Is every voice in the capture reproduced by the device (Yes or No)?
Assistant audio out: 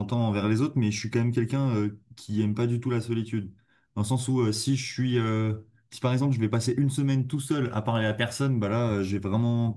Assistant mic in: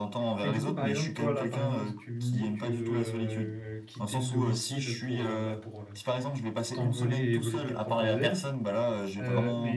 No